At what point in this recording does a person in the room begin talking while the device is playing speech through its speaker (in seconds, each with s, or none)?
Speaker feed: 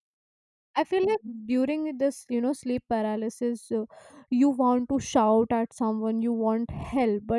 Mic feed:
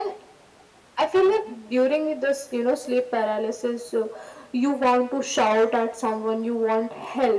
none